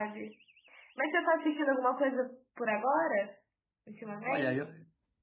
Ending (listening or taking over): taking over